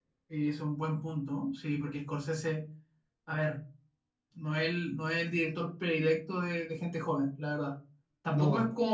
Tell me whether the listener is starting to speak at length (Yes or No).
No